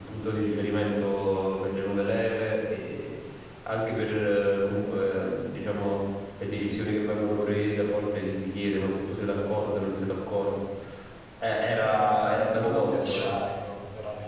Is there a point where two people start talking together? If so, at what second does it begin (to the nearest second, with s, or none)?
12 s